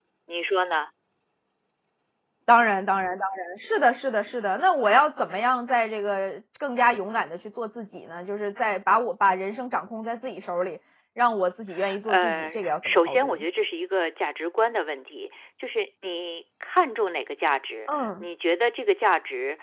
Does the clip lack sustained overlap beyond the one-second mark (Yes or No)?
No